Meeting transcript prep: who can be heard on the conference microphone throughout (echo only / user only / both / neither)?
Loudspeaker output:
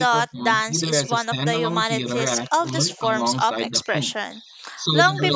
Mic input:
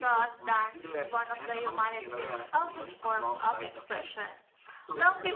echo only